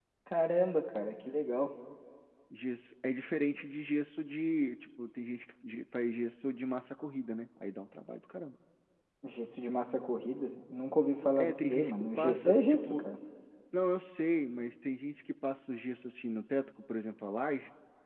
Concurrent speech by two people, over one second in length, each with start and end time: 11.4-13.0

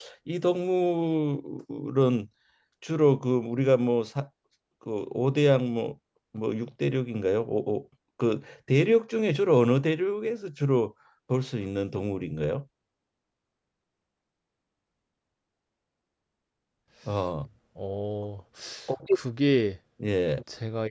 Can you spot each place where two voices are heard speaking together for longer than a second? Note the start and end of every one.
none

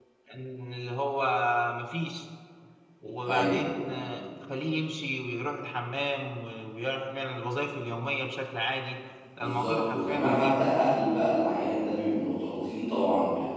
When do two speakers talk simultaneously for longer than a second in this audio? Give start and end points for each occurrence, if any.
9.4-10.6

